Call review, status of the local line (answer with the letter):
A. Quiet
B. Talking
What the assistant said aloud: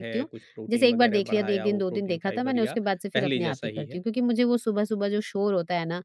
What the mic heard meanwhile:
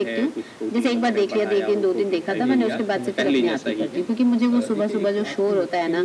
B